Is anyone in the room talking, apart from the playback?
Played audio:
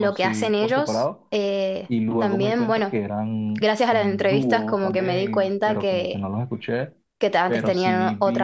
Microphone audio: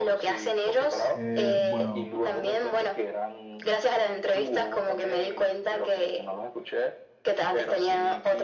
Yes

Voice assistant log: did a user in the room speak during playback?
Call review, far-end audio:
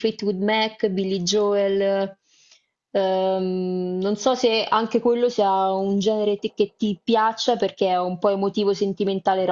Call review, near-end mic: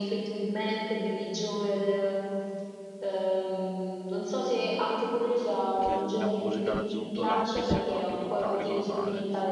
Yes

